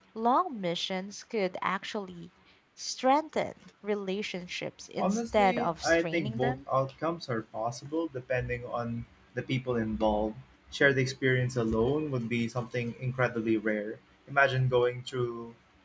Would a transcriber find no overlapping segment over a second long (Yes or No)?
No